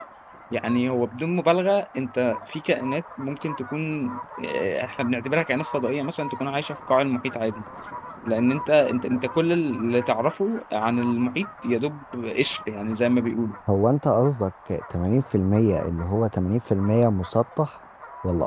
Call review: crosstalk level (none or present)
none